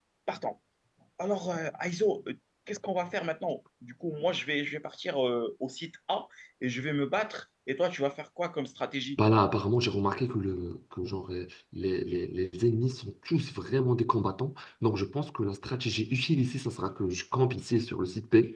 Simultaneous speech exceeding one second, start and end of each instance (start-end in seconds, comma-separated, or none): none